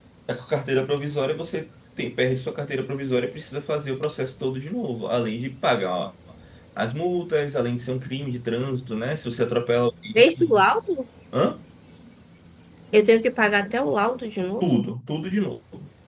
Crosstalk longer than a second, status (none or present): none